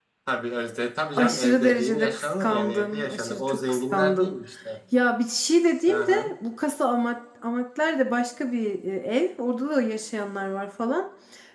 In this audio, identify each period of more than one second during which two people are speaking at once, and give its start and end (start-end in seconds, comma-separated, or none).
1.0-4.4